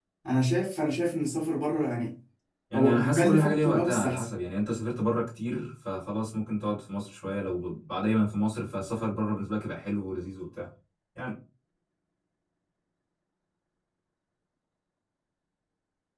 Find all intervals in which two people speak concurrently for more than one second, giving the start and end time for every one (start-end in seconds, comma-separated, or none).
2.7-4.2